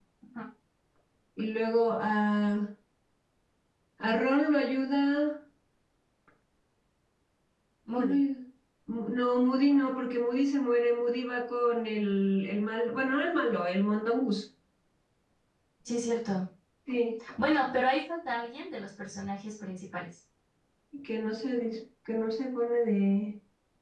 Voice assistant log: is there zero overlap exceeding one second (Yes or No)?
Yes